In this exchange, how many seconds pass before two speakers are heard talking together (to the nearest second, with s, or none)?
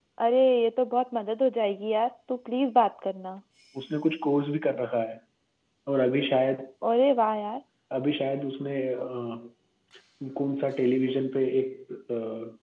none